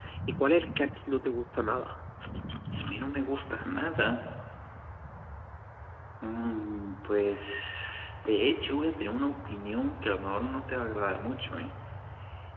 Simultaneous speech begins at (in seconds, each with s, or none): none